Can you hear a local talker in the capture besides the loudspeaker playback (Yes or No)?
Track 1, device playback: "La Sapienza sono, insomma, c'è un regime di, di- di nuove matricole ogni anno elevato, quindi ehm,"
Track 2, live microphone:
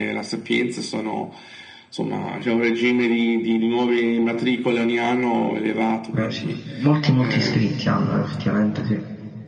Yes